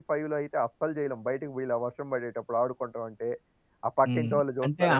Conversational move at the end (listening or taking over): taking over